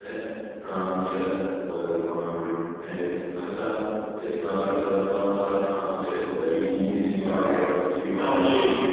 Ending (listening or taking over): taking over